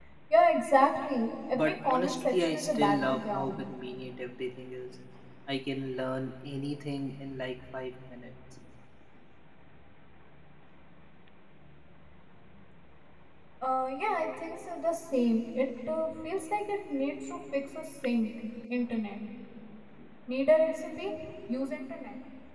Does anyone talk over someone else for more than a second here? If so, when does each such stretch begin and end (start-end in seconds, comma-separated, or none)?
1.5-3.6